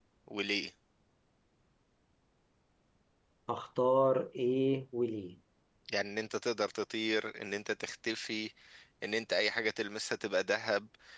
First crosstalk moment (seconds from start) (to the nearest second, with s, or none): none